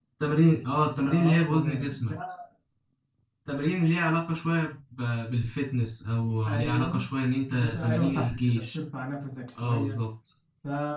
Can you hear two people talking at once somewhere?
Yes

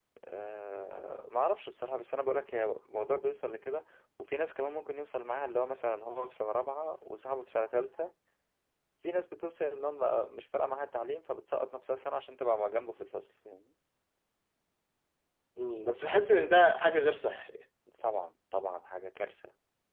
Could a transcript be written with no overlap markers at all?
Yes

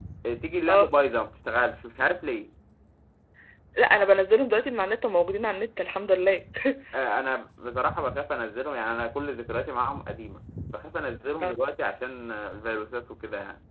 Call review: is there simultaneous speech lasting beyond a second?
No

